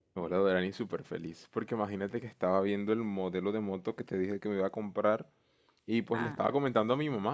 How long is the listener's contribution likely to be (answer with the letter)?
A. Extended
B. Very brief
B